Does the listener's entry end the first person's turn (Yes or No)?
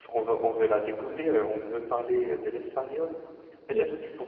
No